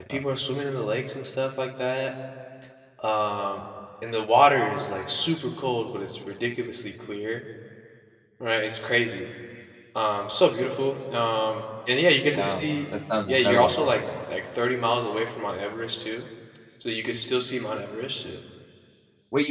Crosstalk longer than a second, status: none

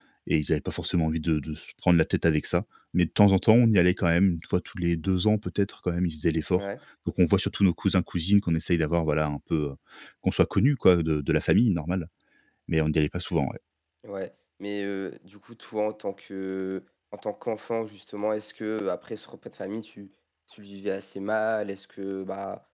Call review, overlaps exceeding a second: none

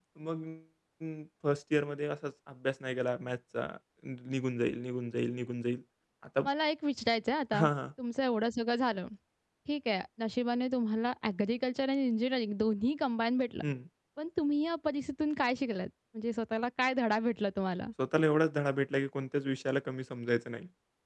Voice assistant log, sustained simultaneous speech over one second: none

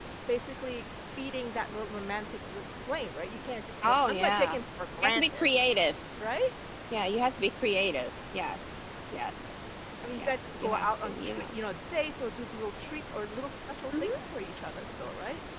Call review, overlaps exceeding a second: present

